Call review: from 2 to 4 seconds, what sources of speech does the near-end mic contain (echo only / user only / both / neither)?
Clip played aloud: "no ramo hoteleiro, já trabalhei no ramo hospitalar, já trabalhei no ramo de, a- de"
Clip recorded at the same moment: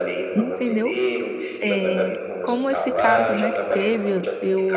both